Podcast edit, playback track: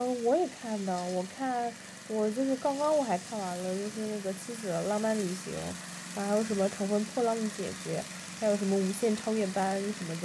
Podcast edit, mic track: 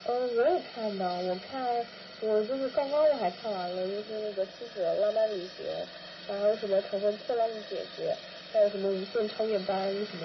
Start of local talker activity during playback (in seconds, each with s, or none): none